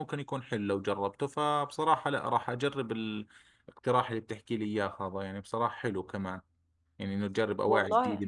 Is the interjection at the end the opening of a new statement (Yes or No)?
No